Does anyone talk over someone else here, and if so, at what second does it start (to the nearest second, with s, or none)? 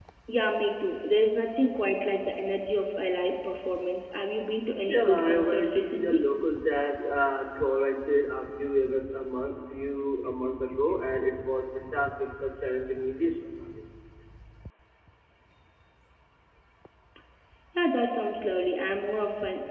5 s